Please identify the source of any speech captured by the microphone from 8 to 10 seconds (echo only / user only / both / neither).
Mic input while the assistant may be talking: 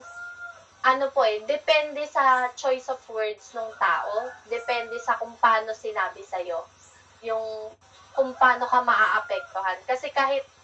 echo only